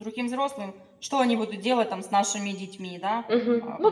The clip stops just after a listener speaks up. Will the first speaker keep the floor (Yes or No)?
No